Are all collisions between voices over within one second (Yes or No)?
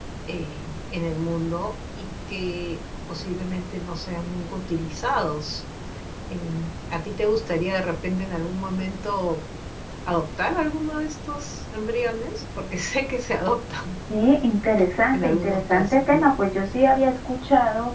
No